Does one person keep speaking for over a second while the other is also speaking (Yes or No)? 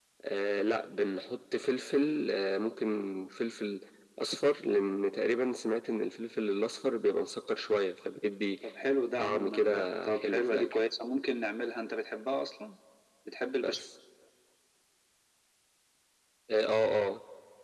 Yes